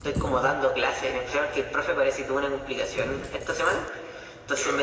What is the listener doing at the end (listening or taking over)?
listening